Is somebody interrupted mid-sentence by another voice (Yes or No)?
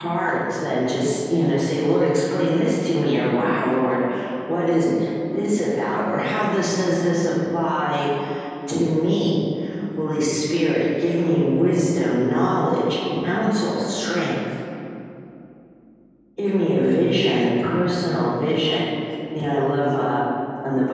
No